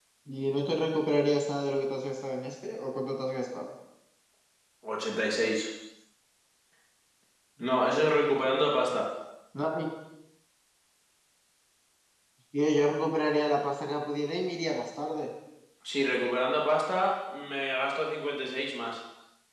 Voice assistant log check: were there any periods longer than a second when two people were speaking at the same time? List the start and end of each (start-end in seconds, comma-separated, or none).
none